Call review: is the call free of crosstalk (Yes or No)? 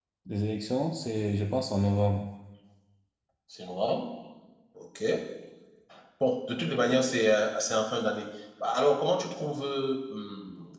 Yes